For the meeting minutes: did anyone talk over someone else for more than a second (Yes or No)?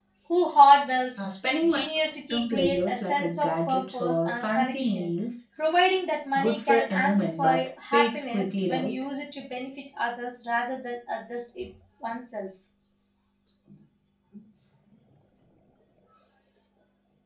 Yes